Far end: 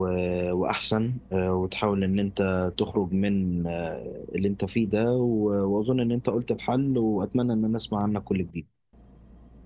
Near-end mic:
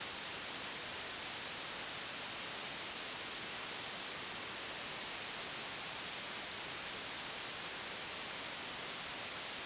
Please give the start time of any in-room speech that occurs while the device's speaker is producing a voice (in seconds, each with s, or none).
none